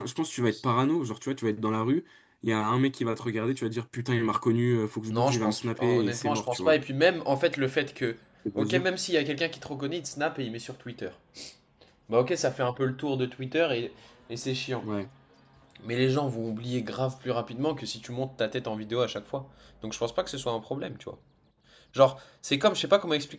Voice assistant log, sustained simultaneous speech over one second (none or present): present